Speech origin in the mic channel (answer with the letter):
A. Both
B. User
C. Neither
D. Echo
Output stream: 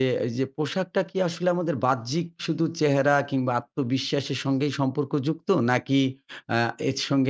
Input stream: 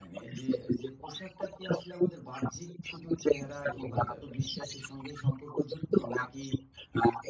A